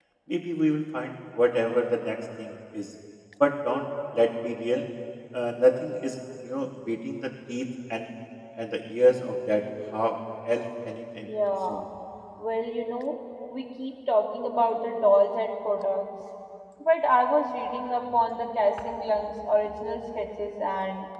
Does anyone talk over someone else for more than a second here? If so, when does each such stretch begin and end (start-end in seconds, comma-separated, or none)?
none